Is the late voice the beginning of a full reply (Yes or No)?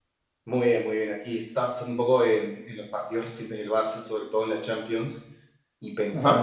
No